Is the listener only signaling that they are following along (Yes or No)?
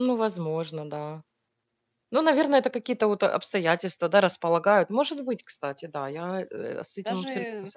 No